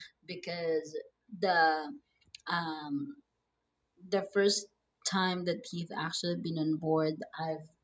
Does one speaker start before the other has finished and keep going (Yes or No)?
No